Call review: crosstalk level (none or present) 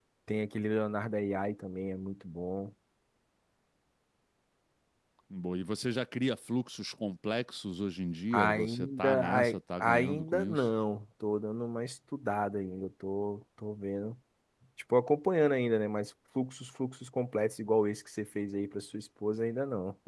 present